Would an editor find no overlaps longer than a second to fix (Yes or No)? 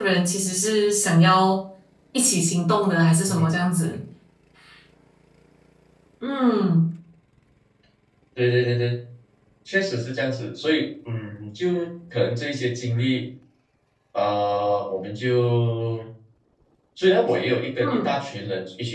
Yes